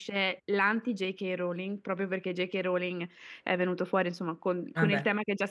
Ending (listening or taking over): listening